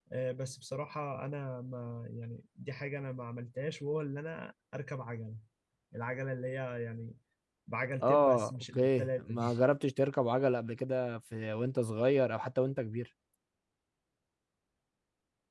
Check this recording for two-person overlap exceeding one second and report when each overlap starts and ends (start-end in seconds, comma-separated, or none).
8.0-9.6